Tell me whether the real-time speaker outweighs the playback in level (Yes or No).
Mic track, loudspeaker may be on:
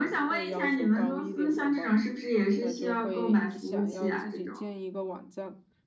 No